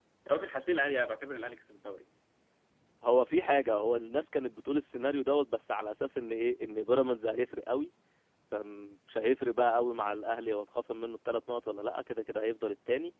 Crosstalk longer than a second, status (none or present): none